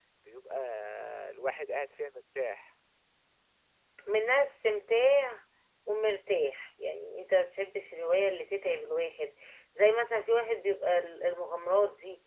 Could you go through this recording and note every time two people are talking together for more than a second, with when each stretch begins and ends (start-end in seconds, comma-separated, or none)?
none